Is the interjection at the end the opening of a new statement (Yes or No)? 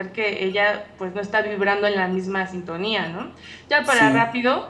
No